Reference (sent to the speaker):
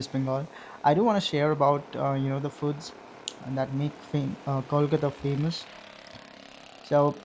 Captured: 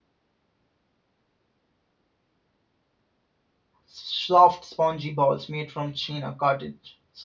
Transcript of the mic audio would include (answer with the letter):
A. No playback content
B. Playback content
A